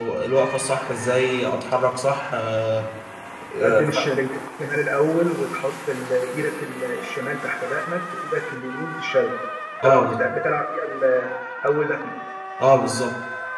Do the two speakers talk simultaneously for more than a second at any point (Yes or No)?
No